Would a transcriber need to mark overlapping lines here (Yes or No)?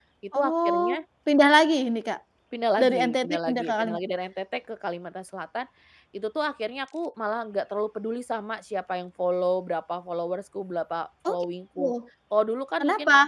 Yes